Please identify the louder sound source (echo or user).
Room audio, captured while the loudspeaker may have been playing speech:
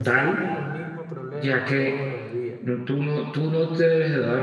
user